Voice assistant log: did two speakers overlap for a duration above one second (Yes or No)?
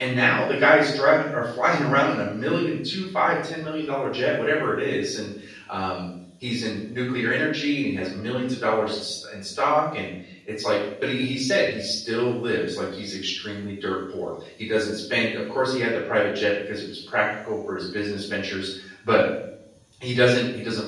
No